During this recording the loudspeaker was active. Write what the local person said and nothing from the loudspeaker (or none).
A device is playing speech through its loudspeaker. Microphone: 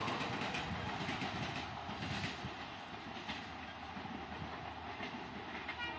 none